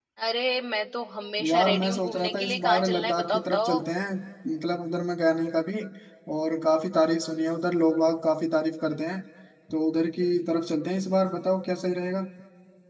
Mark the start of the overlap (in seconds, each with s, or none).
1.4 s